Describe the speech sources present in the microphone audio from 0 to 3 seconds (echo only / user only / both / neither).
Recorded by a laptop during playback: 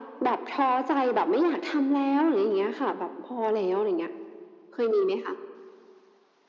echo only